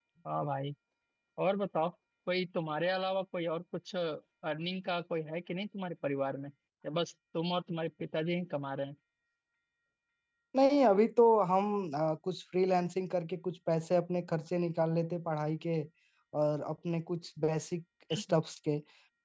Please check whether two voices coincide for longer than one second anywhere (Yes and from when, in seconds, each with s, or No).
No